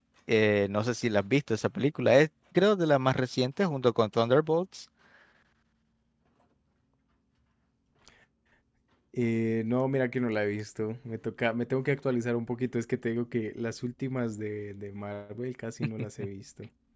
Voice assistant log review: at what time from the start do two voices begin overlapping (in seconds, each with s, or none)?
none